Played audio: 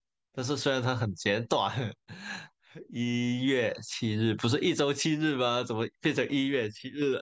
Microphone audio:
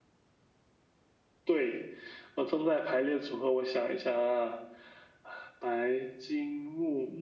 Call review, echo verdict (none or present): none